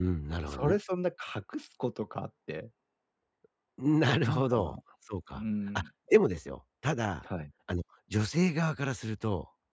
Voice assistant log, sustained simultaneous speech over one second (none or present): none